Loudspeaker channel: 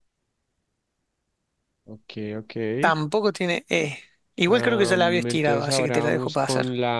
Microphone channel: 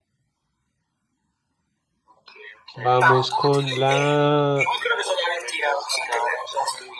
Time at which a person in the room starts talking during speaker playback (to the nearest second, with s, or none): 3 s